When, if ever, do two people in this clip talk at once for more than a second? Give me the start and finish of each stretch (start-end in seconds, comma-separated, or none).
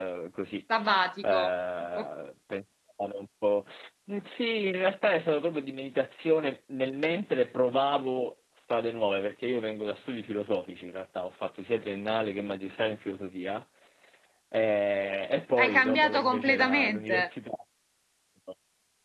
15.6-17.1